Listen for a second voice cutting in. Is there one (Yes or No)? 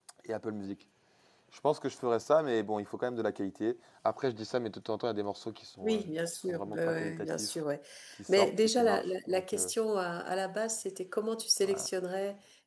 Yes